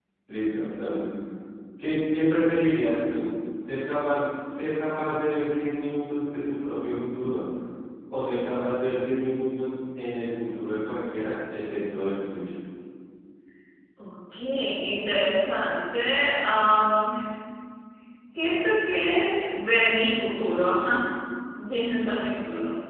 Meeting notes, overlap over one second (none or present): none